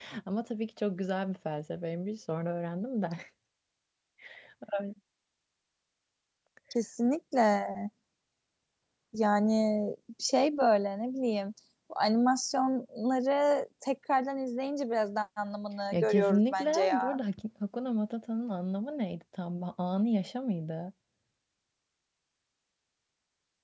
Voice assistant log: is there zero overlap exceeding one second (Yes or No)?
No